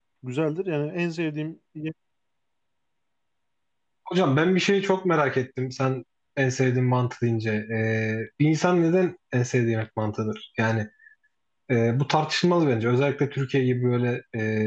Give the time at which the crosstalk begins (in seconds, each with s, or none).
none